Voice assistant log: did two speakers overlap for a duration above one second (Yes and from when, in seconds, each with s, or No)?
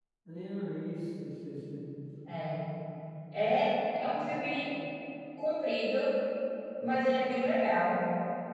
No